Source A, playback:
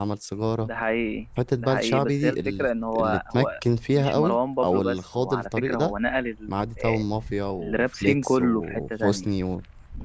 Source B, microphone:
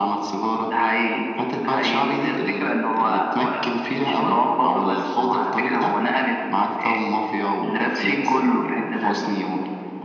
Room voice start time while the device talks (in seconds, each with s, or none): none